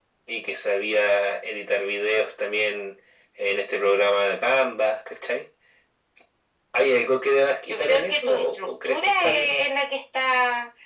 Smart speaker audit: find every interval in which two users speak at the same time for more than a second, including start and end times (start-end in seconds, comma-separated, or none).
7.7-9.6